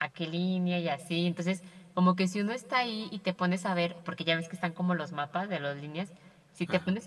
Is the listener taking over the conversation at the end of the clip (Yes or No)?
No